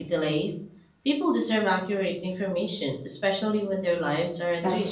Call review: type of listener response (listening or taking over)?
taking over